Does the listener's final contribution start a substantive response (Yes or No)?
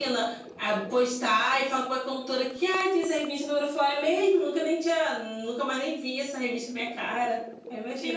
Yes